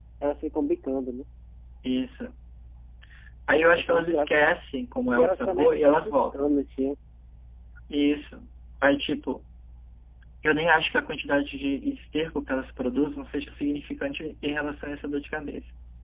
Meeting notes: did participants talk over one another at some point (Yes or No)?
Yes